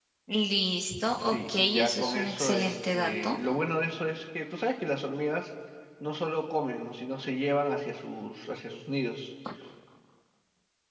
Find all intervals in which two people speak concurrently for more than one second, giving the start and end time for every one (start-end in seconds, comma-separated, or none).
1.2-3.4